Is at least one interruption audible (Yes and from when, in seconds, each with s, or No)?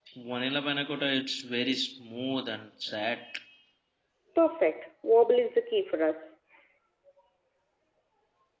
No